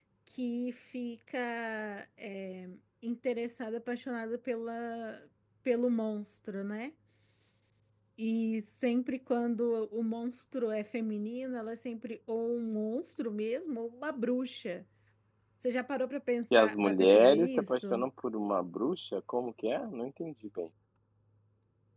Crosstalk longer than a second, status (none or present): present